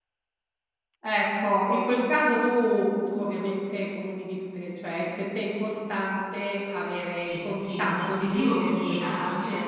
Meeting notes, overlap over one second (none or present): present